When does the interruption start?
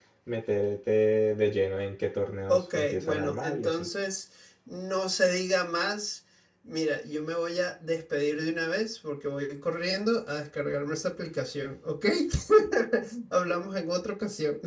2 s

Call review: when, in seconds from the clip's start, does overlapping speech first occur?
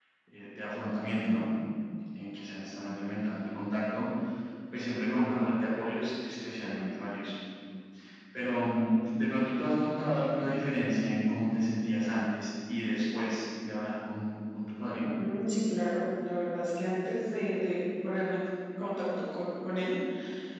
none

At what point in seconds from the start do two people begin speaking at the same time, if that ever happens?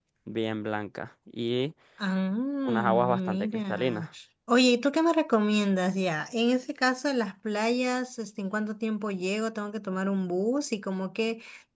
3 s

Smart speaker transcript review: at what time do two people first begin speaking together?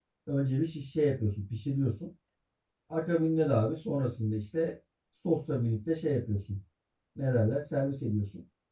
none

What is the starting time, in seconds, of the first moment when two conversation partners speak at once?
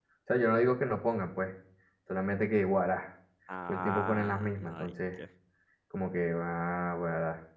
4 s

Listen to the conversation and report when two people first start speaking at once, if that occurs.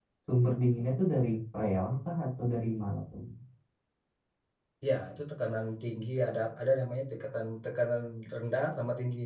none

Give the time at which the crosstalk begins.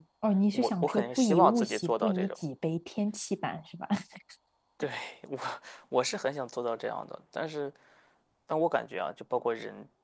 1 s

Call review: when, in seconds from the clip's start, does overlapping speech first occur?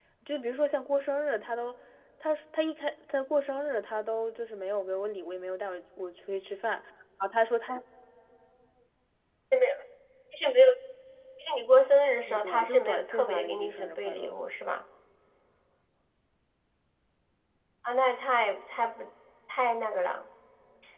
12 s

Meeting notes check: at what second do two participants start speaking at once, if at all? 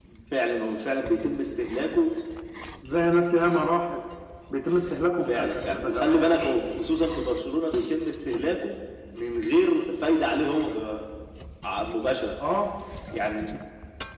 5 s

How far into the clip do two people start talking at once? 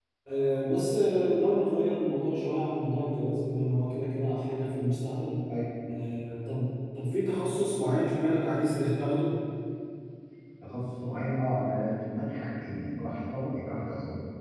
none

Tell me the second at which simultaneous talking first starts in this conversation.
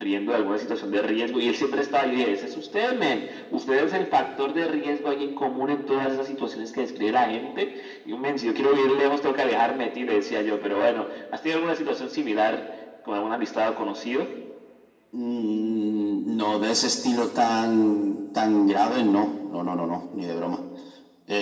none

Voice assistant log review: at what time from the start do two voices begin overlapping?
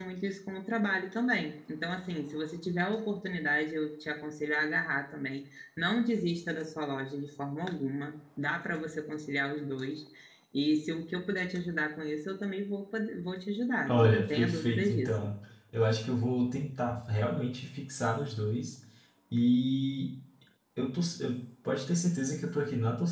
14 s

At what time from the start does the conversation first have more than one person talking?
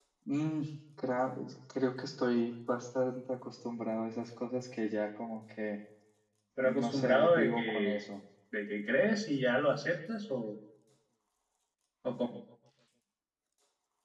7 s

